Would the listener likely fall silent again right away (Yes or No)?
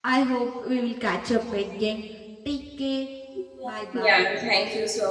No